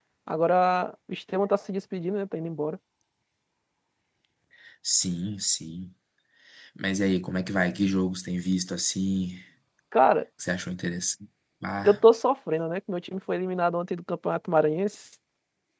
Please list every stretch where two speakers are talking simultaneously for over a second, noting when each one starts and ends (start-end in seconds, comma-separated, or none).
none